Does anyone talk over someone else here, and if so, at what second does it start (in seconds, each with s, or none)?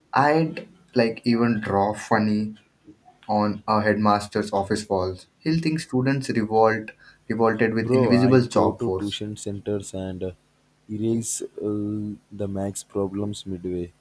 7.8 s